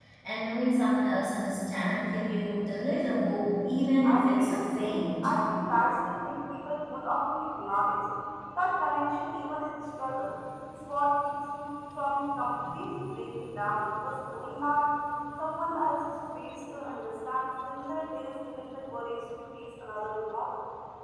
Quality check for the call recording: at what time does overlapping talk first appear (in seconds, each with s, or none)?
4.0 s